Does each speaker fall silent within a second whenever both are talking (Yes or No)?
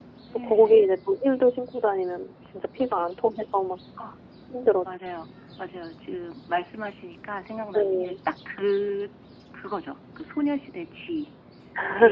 Yes